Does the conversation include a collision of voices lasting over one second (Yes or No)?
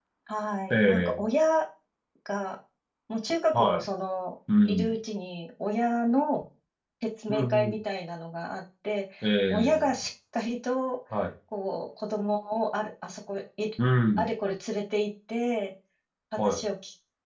No